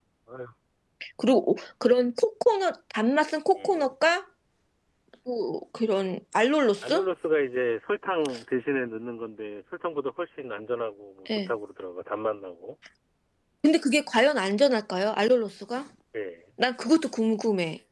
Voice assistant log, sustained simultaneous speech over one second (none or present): none